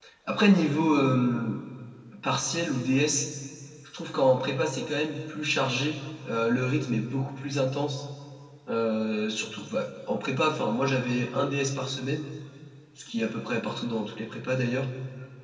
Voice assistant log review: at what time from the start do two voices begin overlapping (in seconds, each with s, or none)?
none